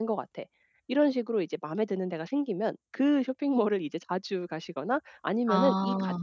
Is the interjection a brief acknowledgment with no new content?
Yes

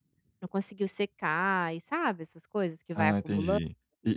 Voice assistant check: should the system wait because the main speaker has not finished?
No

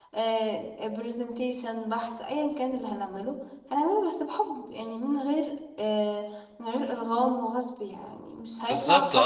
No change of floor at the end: No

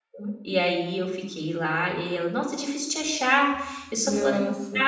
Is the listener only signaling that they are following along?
Yes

